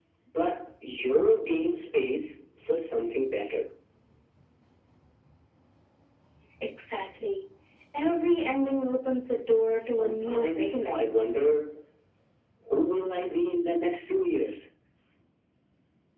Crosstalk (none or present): present